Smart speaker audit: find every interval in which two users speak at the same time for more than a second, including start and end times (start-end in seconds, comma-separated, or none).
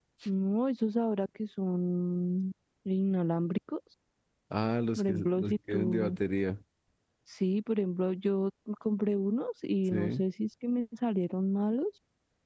5.0-6.2